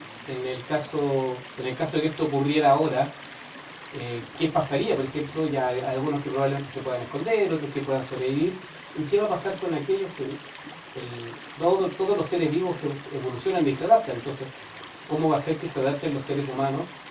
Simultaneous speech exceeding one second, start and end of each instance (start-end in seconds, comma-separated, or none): none